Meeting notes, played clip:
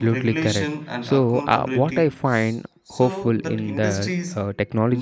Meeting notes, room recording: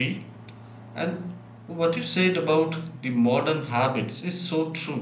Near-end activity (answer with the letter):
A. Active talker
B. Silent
A